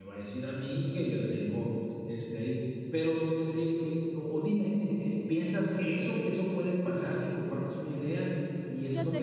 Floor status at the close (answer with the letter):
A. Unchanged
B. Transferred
A